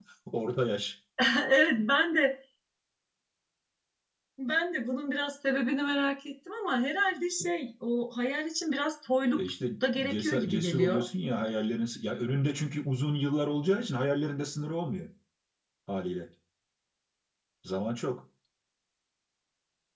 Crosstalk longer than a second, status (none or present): present